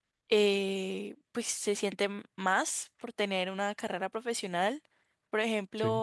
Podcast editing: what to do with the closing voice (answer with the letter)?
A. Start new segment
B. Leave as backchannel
B